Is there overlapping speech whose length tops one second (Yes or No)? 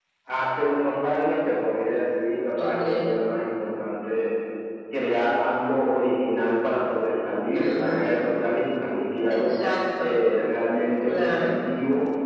No